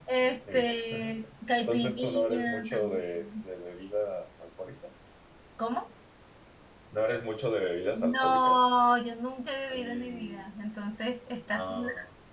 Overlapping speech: Yes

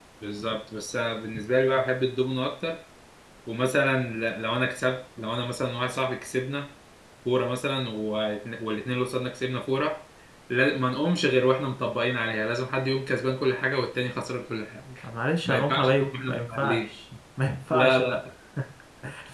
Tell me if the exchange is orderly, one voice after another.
No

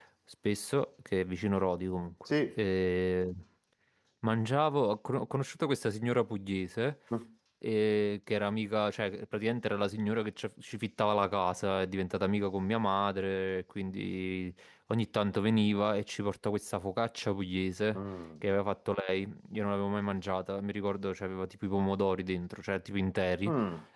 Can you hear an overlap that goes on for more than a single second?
No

